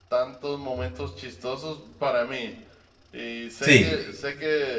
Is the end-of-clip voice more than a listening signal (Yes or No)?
No